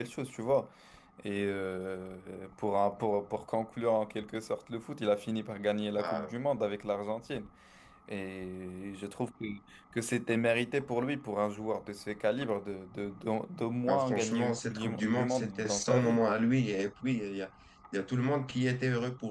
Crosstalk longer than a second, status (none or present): present